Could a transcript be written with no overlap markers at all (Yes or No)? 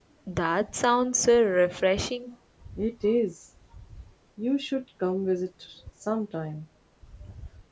Yes